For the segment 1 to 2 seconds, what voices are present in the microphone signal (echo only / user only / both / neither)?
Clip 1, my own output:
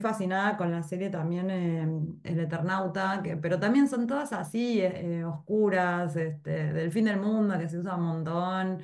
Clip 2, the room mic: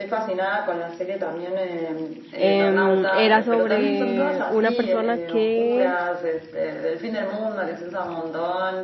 echo only